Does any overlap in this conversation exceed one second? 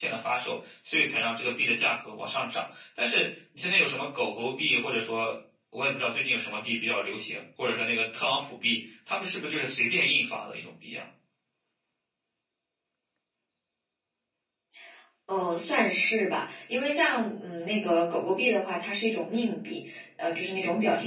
No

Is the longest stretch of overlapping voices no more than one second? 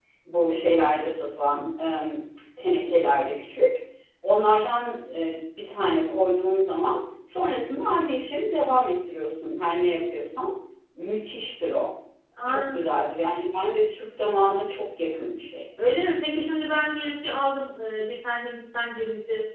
Yes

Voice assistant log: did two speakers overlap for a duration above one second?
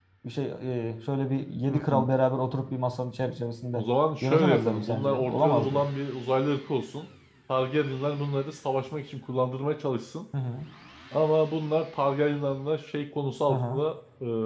Yes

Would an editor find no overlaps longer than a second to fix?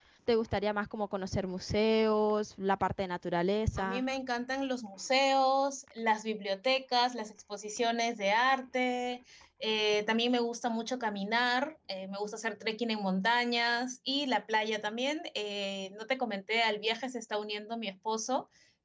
Yes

